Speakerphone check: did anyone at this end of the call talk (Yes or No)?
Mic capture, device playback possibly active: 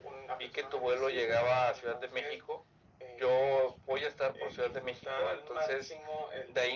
No